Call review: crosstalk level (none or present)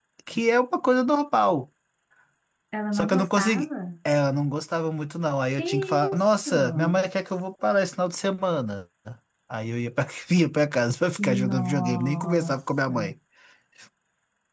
present